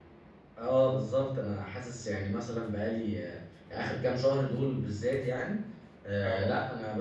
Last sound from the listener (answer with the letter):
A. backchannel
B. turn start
A